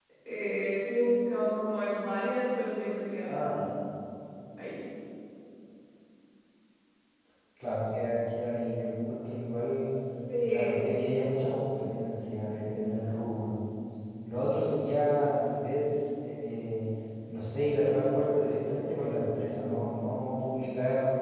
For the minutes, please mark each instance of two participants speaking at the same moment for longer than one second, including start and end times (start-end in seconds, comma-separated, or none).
none